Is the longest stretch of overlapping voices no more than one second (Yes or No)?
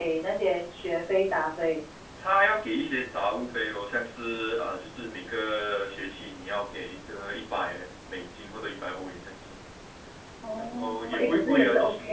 No